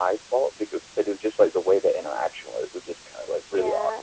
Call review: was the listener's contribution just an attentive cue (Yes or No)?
No